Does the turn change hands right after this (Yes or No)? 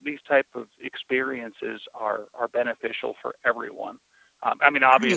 No